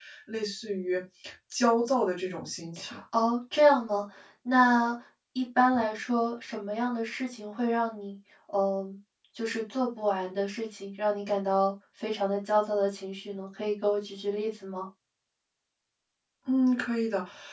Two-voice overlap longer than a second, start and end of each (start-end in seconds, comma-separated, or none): none